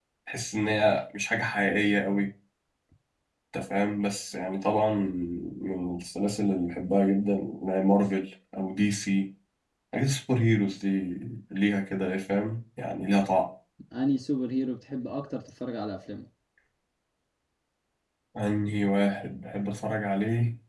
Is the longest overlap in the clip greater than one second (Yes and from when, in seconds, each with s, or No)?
No